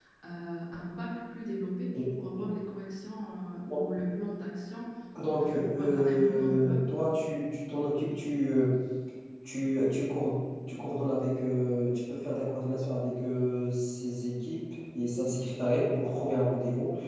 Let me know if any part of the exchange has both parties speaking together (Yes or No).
Yes